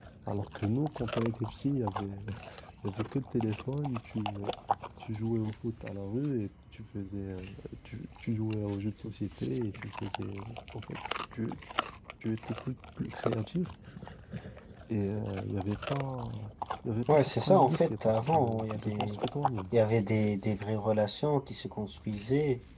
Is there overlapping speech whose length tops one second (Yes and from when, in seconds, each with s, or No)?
Yes, from 17.1 s